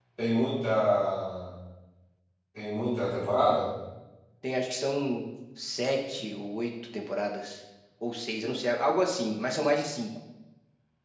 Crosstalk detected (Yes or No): No